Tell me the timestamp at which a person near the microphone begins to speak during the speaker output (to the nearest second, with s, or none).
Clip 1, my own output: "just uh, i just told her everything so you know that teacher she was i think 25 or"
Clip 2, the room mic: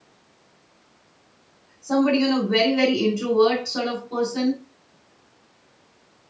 2 s